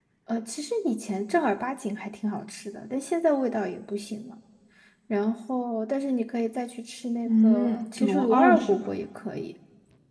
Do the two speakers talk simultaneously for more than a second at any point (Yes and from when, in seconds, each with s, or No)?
Yes, from 7.2 s